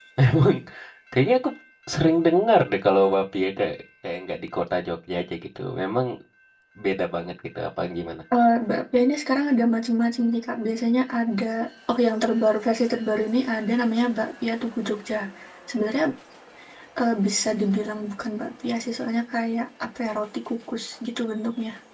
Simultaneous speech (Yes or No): No